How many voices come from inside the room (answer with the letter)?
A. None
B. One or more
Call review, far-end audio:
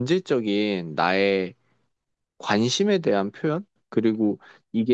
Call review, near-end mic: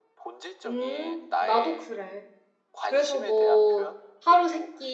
B